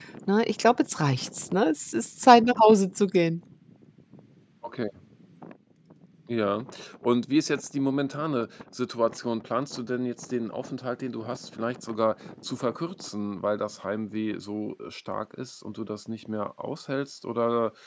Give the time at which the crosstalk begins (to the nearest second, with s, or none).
none